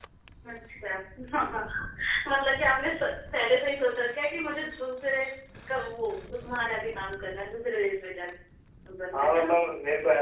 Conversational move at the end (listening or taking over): taking over